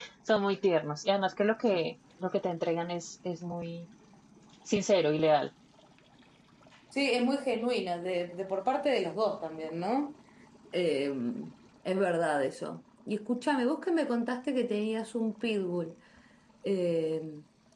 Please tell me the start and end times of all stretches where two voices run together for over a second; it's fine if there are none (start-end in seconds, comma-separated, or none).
none